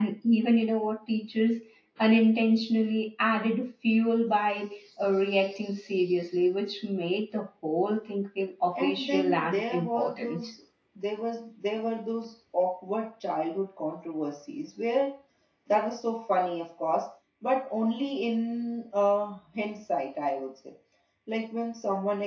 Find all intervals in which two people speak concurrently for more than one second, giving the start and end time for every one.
8.8-10.5

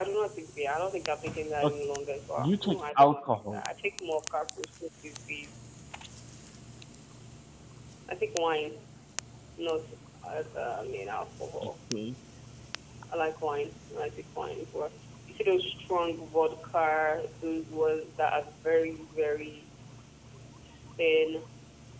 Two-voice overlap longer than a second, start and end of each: 2.4-3.6

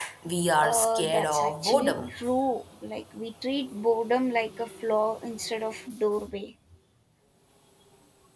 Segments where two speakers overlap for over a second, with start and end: 0.6-2.1

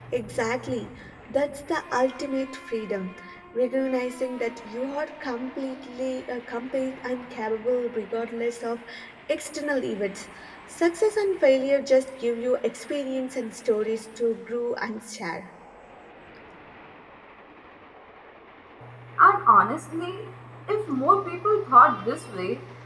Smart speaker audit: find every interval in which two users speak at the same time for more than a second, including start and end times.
none

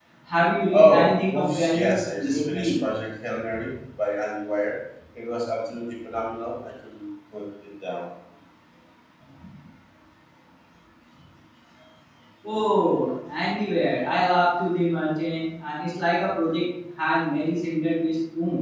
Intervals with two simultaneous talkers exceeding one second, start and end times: 0.7-2.7

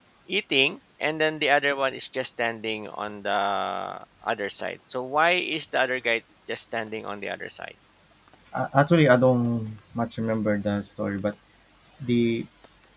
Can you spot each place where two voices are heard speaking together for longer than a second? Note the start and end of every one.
none

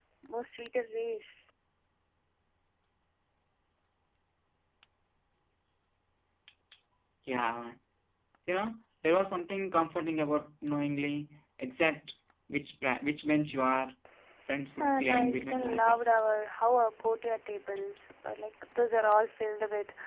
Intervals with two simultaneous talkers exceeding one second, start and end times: 14.8-16.0

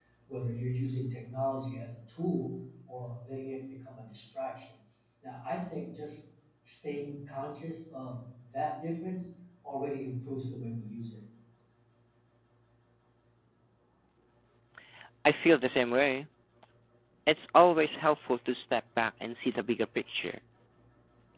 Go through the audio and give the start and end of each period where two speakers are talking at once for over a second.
none

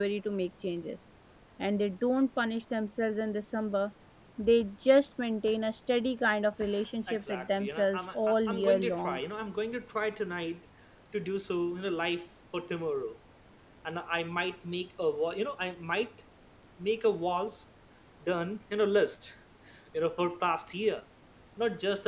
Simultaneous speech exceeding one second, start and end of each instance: 7.1-9.2

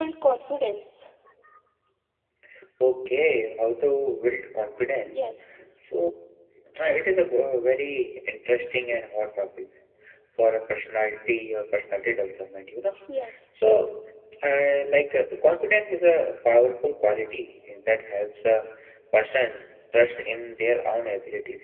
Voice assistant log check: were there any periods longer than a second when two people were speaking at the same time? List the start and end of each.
none

